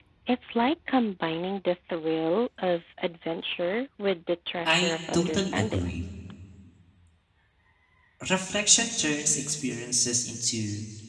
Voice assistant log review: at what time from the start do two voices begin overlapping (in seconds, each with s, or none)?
4.7 s